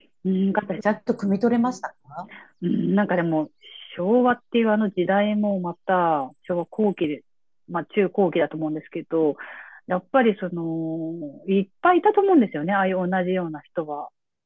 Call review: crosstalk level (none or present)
none